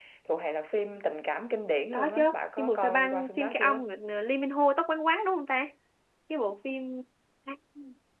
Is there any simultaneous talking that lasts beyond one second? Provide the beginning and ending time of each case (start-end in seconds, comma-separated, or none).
2.6-3.8